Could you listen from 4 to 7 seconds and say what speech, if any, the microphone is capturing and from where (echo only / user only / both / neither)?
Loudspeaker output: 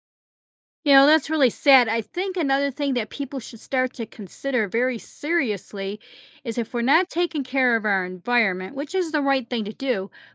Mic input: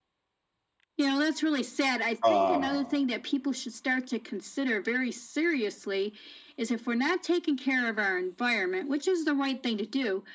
echo only